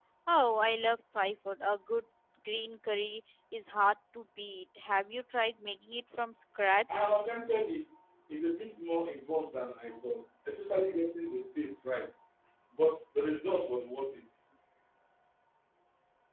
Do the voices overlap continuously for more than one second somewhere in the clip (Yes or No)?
No